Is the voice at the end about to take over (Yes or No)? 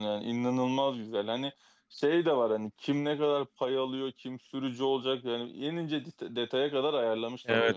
Yes